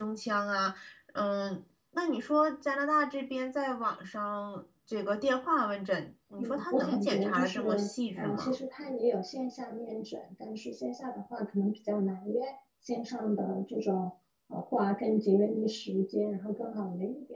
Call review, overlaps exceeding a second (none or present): present